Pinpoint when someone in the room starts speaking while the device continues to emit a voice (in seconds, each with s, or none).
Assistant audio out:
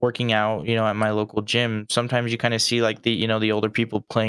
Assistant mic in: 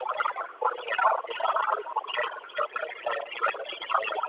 none